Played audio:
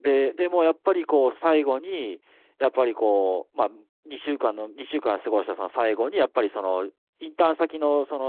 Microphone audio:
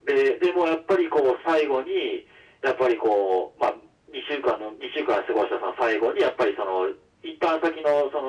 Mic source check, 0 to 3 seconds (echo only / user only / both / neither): echo only